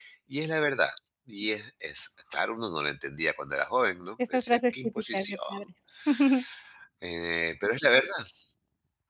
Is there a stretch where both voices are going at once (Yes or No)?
Yes